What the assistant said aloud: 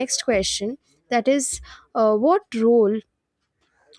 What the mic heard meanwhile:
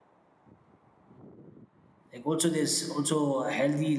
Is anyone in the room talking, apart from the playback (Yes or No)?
Yes